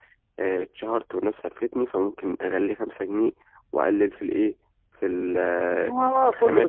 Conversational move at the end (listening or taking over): taking over